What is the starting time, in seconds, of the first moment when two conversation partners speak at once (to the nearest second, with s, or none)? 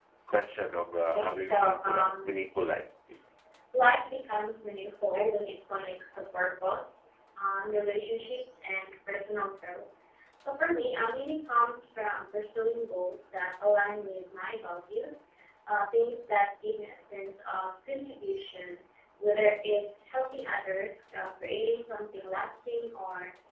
1 s